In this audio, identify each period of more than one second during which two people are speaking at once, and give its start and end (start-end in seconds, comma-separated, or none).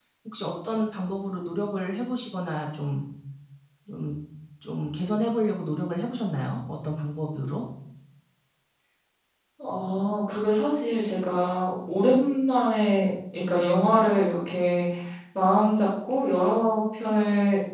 none